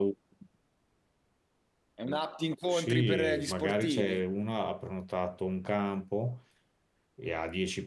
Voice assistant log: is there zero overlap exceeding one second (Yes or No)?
No